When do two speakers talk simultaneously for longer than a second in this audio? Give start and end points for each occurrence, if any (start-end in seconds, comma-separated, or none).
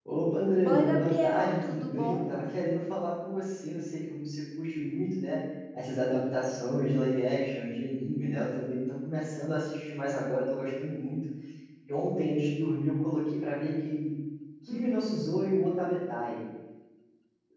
0.6-2.3